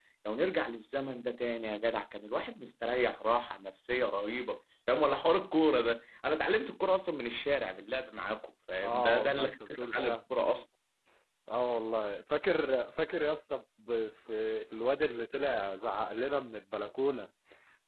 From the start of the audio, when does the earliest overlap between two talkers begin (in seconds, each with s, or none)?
8.8 s